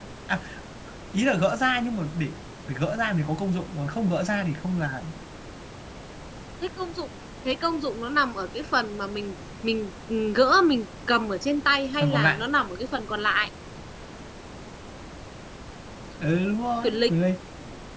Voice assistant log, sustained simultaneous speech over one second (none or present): none